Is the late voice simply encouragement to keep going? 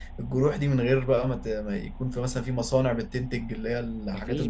No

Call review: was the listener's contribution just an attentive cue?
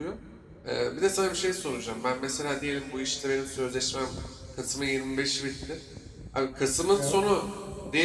Yes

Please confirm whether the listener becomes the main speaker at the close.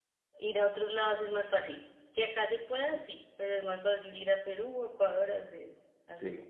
Yes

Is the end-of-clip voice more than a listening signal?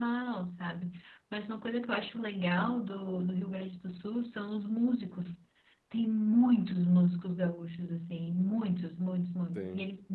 No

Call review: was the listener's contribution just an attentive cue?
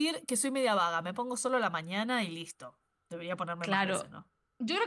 No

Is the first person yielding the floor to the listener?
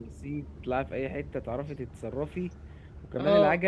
No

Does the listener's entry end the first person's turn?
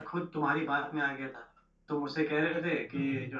No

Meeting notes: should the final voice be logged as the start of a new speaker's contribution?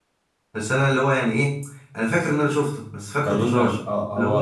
Yes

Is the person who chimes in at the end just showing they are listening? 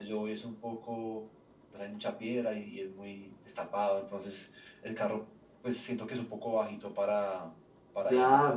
No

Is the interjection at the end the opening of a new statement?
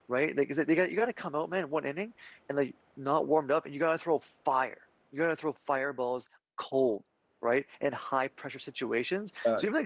No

